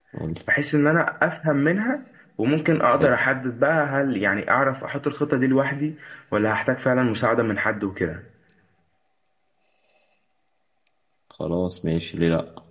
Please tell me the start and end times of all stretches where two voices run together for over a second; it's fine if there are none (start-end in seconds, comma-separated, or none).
none